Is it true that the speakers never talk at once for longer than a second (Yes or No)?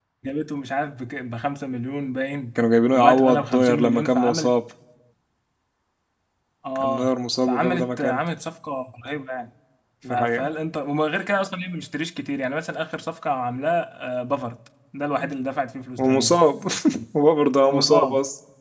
No